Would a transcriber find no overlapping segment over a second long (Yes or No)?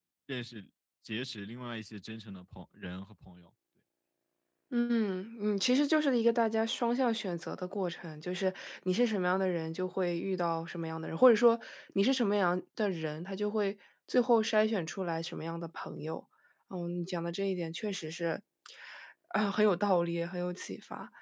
Yes